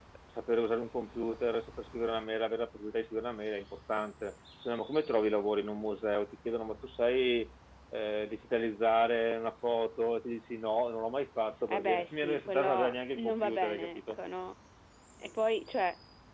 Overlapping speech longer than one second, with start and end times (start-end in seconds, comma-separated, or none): 11.7-14.0